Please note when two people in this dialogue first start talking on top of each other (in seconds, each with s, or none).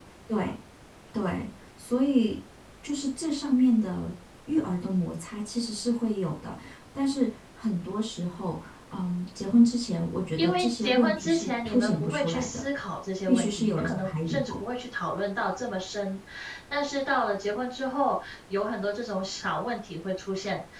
10.4 s